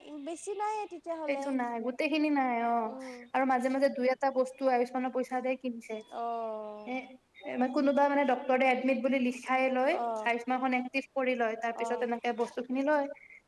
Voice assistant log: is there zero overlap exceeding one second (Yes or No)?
Yes